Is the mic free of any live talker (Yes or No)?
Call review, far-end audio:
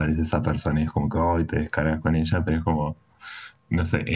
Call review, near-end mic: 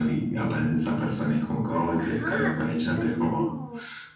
No